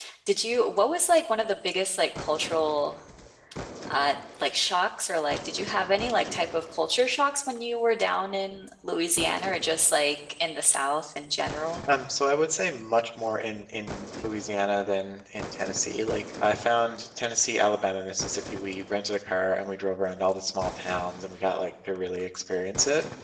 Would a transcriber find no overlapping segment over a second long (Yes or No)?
Yes